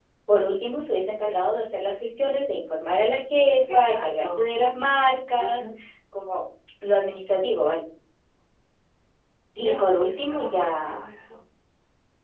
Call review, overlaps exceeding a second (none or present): present